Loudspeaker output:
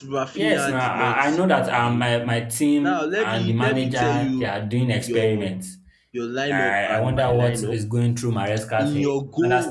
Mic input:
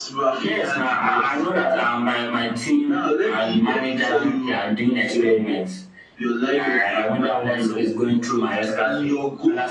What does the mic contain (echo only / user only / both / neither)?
echo only